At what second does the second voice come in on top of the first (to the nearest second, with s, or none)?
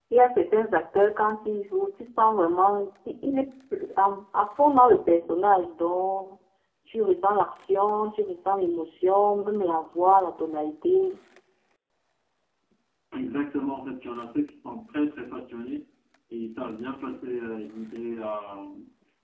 none